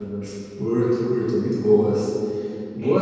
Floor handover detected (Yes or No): No